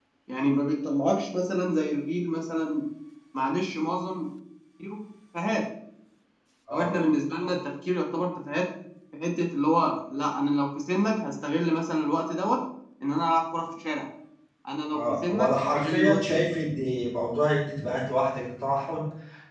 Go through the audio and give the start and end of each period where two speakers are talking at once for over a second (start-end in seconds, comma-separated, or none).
14.9-16.2